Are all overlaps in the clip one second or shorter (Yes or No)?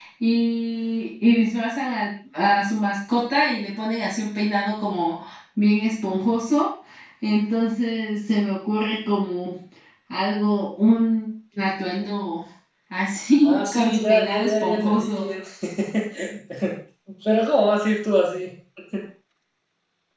No